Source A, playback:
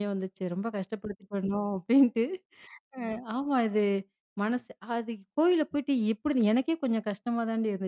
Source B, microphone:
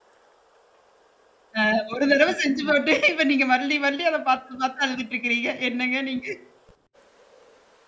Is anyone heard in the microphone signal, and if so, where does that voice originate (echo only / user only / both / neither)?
user only